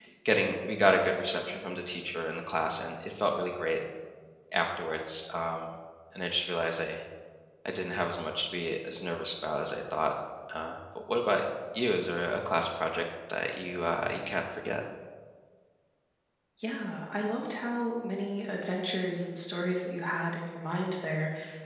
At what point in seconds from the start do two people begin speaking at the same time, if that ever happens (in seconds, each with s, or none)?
none